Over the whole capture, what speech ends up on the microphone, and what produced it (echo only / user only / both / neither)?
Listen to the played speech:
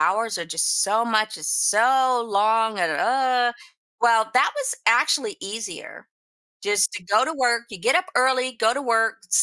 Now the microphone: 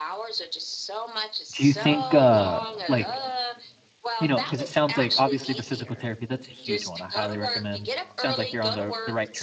both